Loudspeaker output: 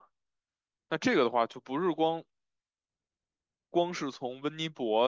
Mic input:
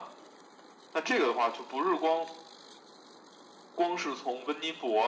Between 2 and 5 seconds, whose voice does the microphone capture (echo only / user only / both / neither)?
echo only